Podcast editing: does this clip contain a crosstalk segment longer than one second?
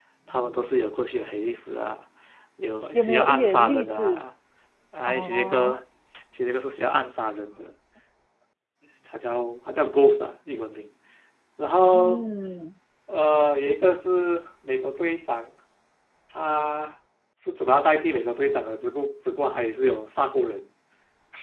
Yes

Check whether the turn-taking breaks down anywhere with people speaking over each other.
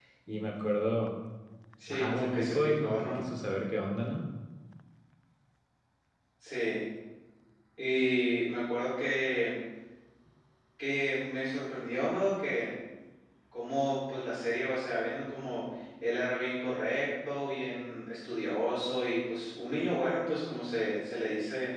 Yes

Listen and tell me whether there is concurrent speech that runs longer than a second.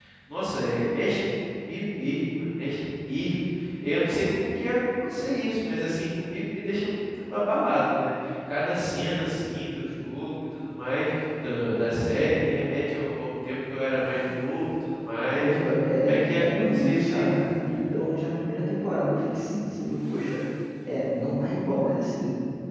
Yes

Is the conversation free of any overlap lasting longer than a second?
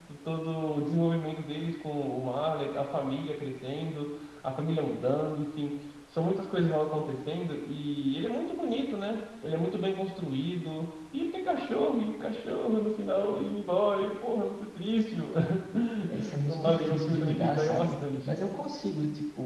No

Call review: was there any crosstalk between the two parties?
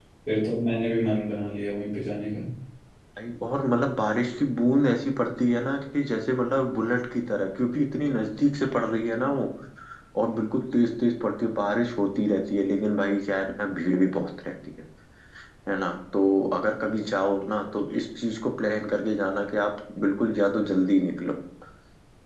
No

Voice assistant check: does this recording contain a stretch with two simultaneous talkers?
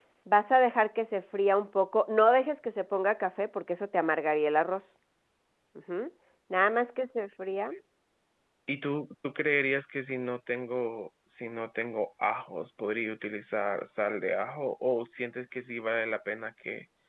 No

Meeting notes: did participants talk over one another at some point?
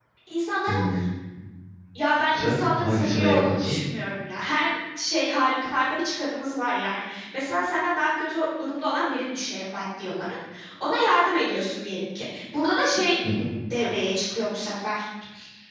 Yes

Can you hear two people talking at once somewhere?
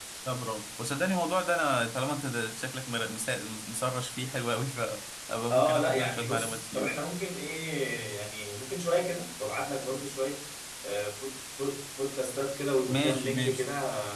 Yes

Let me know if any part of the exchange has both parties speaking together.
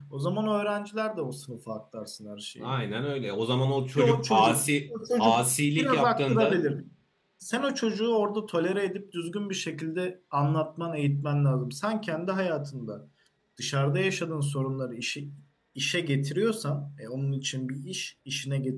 Yes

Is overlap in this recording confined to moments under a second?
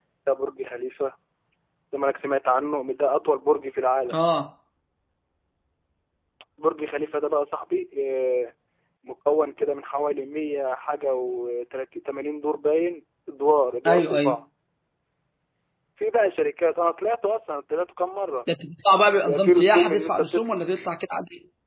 No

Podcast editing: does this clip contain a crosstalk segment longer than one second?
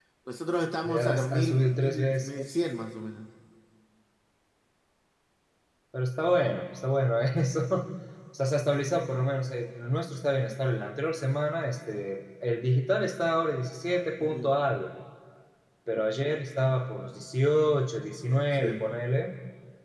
Yes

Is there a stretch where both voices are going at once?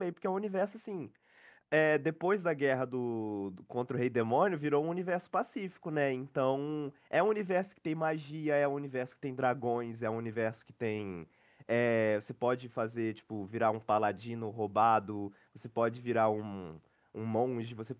No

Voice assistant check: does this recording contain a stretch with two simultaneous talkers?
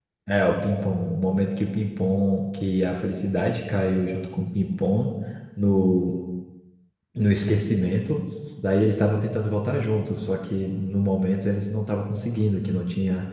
No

